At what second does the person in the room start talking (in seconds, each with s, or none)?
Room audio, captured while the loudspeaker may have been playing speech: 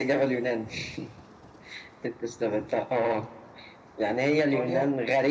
4.4 s